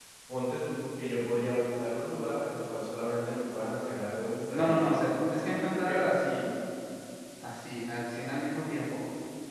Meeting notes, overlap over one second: none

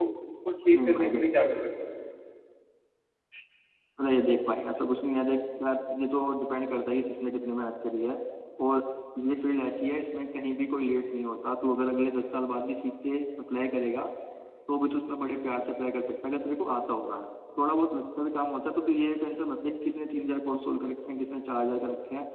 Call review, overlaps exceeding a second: none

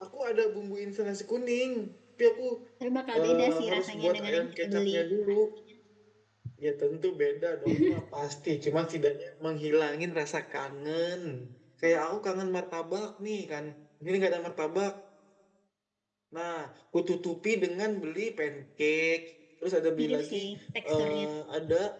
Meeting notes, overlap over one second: present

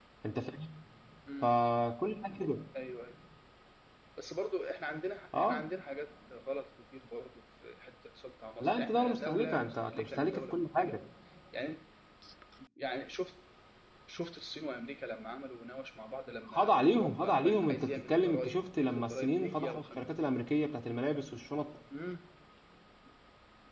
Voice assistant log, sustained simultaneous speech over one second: present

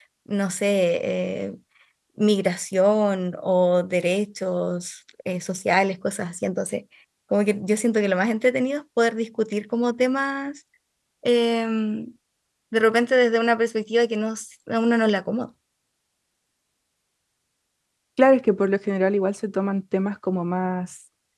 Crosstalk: none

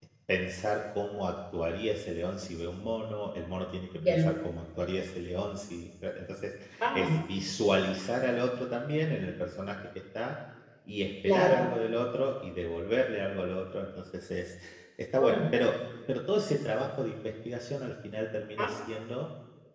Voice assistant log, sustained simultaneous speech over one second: none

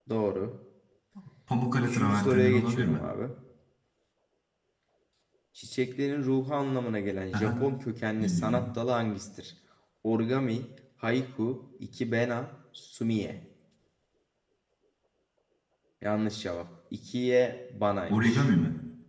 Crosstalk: present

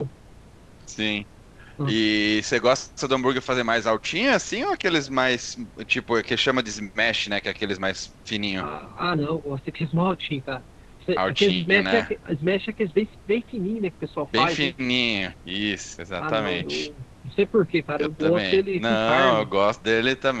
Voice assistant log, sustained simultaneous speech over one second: present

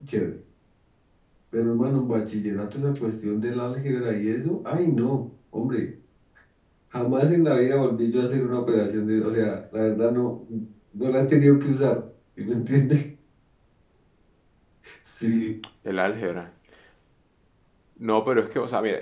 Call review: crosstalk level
none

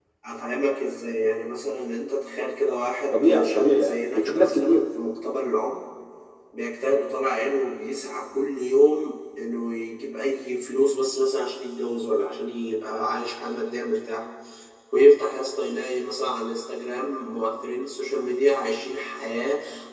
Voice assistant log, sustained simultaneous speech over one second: present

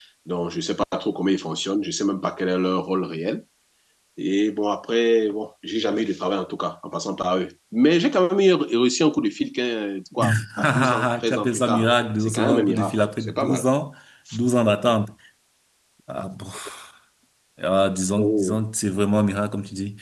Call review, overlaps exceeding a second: present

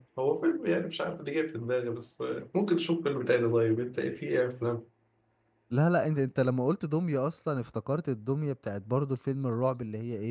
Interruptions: none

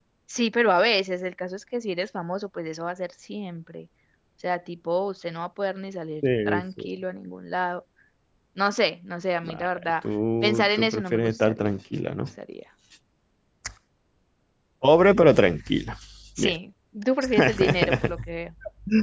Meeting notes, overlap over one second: present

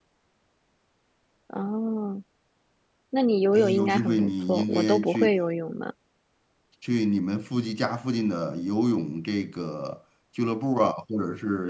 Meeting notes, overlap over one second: present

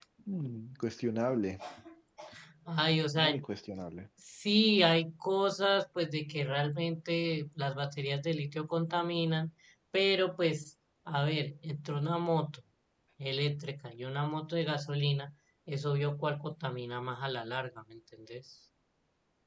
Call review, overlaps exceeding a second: none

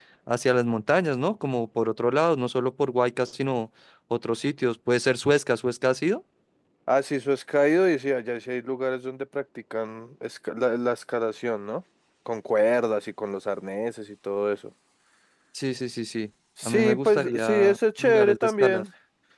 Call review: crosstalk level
present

